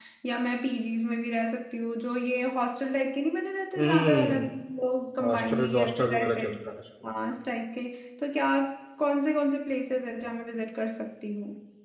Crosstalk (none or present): present